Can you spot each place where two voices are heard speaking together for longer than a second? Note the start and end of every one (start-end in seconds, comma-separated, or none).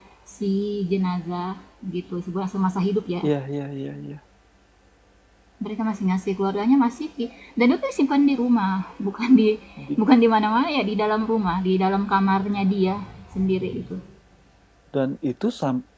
none